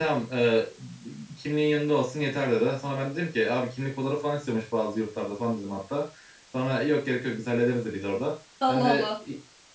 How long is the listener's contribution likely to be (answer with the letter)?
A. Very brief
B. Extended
A